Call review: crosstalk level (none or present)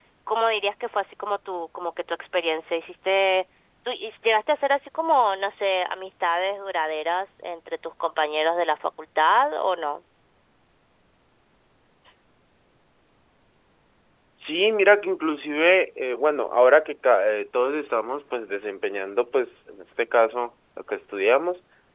none